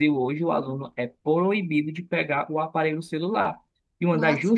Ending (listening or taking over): listening